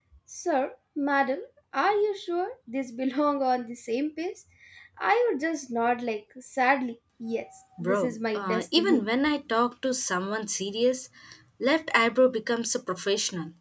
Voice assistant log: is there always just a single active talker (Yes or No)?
No